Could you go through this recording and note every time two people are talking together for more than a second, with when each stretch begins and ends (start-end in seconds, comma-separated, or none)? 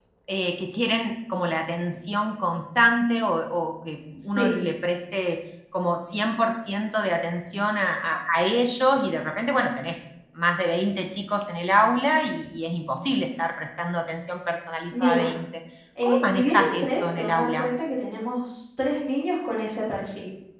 16.0-17.6